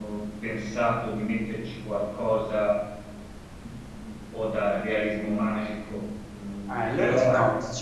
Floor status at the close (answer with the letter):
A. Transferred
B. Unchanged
A